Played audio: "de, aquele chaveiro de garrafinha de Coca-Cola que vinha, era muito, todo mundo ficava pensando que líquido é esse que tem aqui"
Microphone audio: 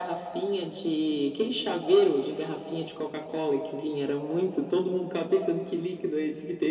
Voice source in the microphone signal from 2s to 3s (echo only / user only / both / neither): echo only